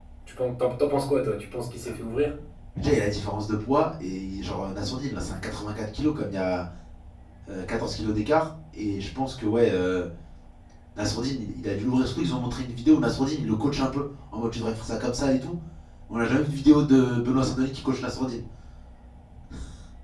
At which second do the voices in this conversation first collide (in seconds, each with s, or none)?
none